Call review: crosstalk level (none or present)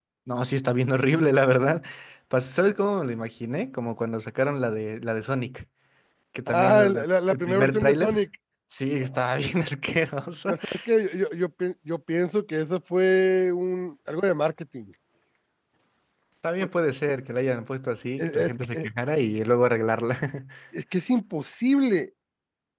present